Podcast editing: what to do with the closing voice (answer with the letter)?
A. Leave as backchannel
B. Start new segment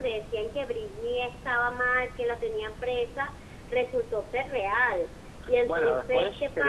B